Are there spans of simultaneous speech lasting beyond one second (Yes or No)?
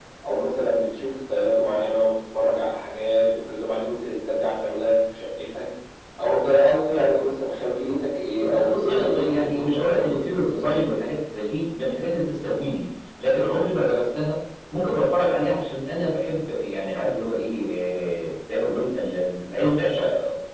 Yes